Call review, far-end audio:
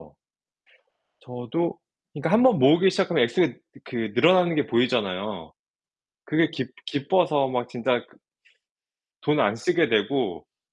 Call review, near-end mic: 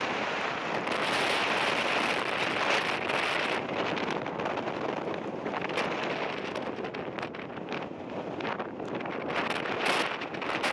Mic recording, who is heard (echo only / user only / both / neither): neither